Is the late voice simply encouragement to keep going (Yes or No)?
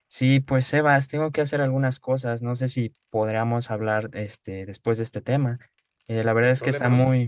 Yes